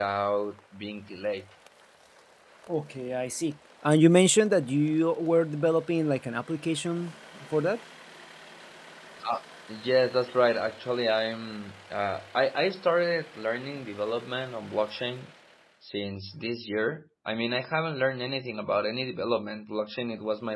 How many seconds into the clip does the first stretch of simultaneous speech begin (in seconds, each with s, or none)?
none